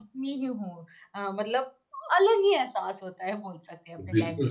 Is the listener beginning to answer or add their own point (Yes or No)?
Yes